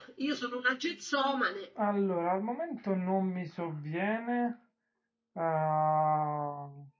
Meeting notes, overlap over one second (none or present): none